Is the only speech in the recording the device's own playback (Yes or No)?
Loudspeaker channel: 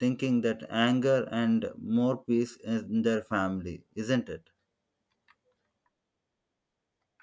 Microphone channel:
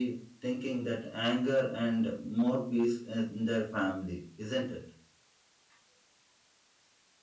Yes